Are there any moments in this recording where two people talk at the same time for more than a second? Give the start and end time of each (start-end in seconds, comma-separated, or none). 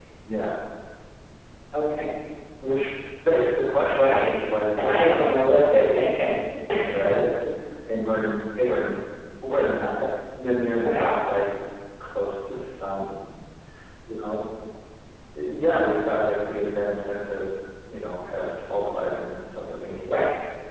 4.8-6.2